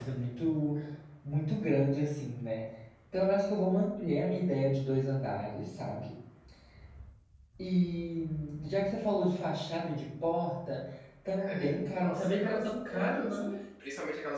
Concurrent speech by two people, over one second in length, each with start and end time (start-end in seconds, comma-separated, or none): 11.4-13.4